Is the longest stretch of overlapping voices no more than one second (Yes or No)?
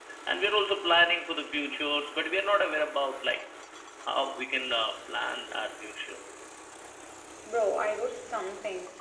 Yes